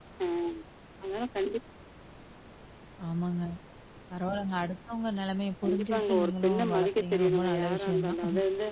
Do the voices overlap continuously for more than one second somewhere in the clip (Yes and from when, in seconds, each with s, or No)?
Yes, from 5.6 s